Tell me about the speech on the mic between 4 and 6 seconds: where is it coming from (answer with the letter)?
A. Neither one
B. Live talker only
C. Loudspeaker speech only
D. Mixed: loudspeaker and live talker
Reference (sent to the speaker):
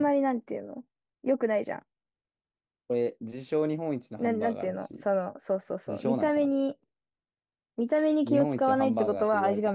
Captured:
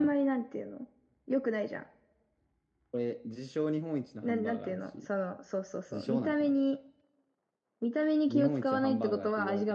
C